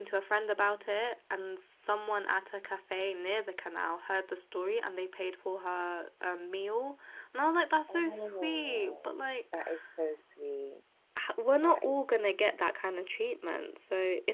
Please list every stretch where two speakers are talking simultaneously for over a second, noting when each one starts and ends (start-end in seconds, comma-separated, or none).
7.9-9.1